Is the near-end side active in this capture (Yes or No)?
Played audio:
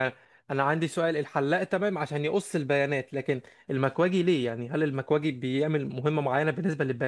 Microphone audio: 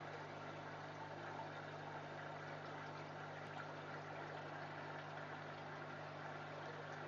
No